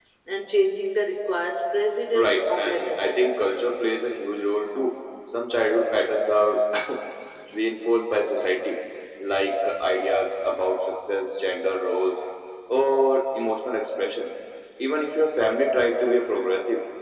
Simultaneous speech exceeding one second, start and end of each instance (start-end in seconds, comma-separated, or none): 2.1-3.6